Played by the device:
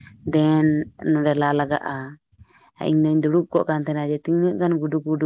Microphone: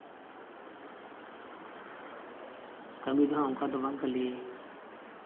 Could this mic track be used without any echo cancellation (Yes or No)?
Yes